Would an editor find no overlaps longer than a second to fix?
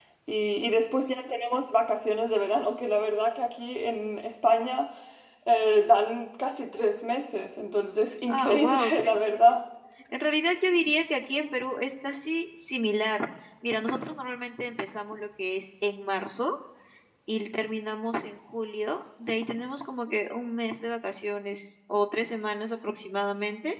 No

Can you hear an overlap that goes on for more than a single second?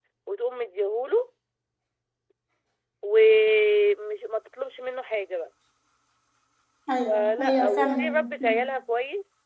Yes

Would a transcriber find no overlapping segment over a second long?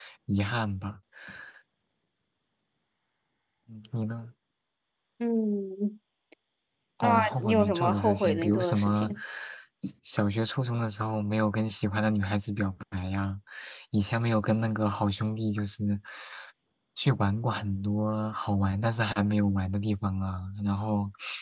No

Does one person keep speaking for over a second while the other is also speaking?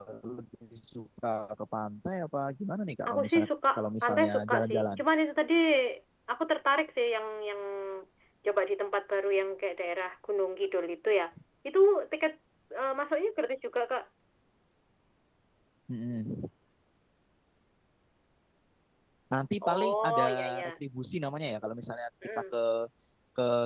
Yes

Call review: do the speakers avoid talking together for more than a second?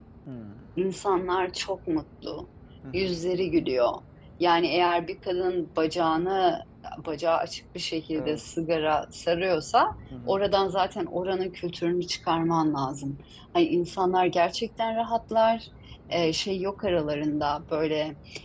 Yes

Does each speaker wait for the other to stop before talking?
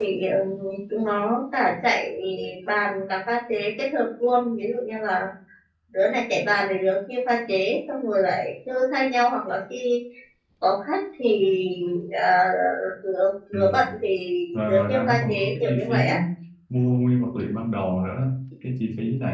No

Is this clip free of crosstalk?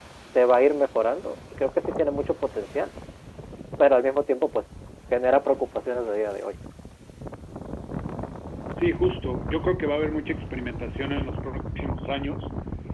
Yes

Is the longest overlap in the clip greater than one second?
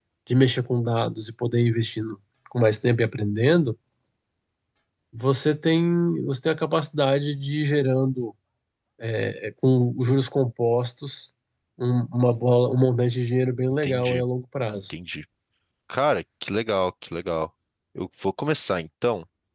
No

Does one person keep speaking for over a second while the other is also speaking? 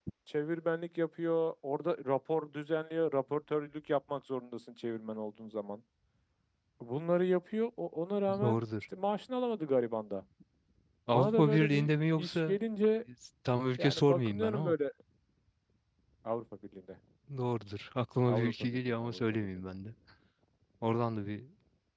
Yes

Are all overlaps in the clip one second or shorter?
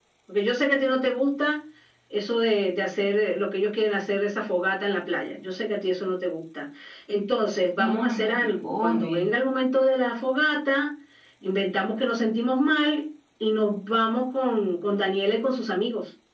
No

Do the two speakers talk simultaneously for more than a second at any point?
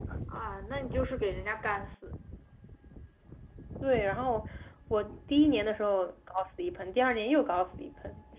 No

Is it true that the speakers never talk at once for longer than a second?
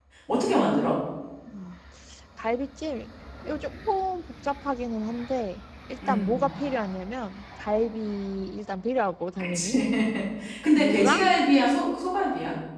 Yes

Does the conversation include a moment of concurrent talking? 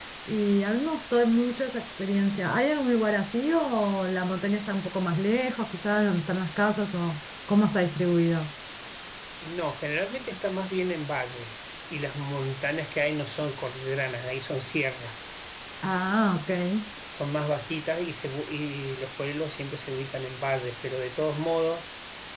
No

